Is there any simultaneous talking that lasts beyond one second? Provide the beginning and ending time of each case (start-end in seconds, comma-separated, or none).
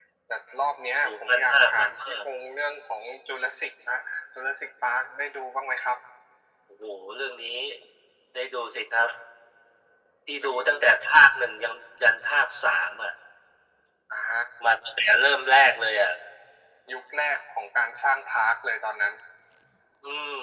1.0-2.2